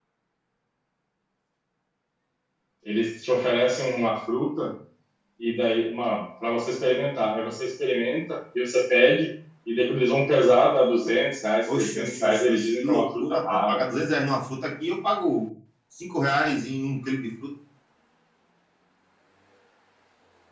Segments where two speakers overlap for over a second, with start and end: 11.7-13.8

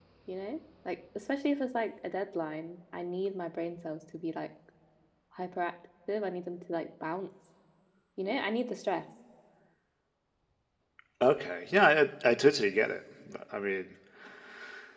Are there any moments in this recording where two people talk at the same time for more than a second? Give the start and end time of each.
none

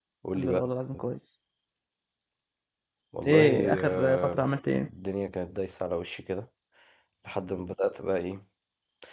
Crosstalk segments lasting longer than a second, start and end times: 3.2-4.5

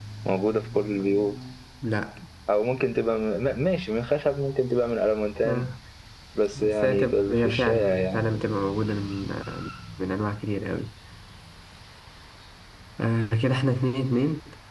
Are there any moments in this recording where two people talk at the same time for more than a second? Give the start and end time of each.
6.5-8.2

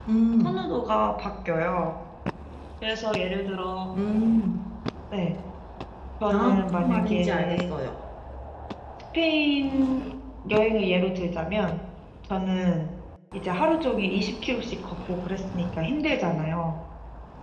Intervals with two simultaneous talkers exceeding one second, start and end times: 6.3-7.7

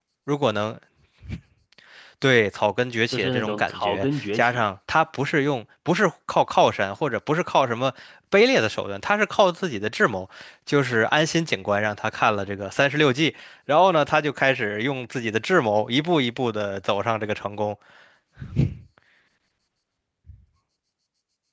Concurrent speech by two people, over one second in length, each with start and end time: 3.1-4.7

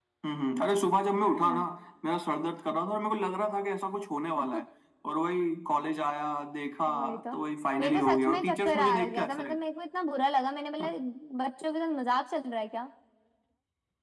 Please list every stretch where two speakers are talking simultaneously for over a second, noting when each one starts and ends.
7.8-9.5

